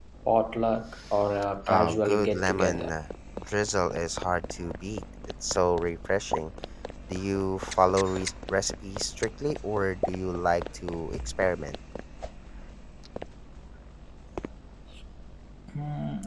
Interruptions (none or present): present